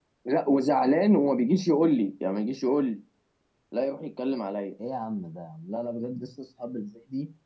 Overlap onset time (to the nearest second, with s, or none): none